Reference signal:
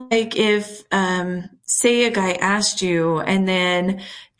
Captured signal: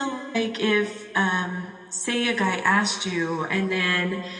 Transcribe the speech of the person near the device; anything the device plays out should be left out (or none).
none